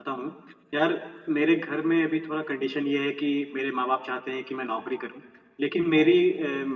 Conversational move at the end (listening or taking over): listening